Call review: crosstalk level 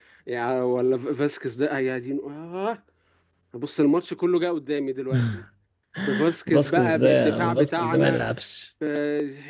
present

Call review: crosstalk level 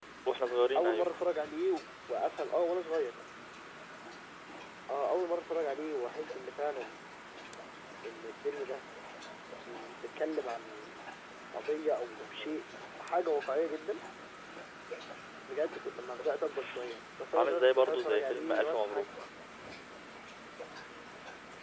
present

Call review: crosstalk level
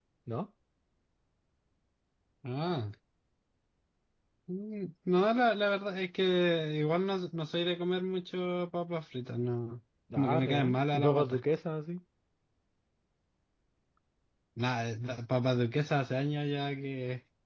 present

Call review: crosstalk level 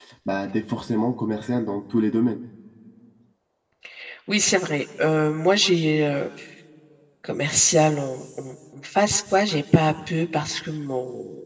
none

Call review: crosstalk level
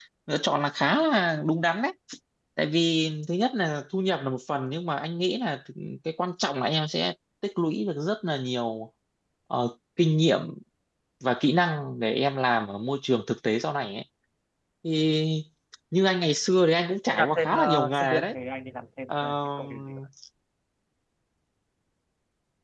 present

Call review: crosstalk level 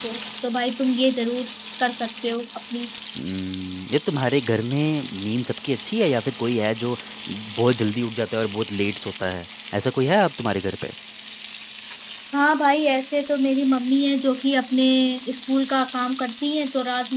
none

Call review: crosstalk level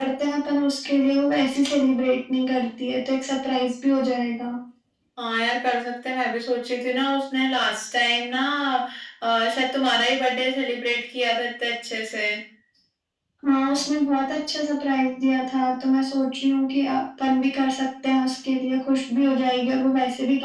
none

